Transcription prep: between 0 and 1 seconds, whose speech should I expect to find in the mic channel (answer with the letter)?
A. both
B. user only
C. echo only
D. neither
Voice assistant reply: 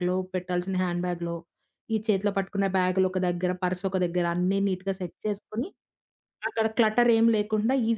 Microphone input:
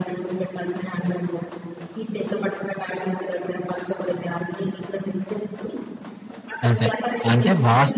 C